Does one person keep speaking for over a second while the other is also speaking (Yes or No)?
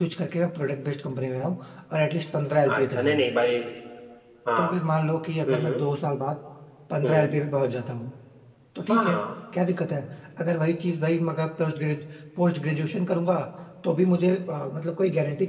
No